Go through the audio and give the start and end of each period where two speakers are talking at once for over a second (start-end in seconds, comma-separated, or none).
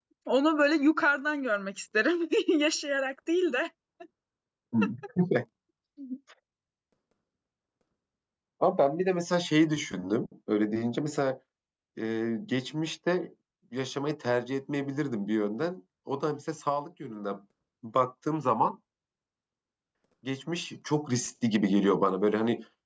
none